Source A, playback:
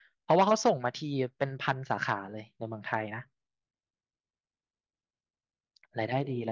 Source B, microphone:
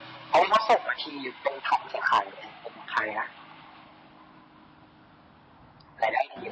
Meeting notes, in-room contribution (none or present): none